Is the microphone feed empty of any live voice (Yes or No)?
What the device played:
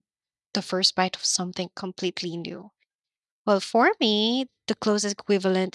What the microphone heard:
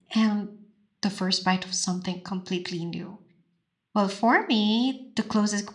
Yes